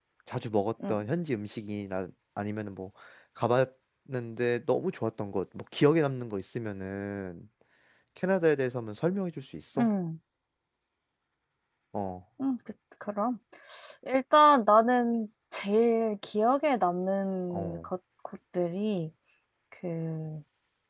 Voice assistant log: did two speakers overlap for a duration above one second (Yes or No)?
No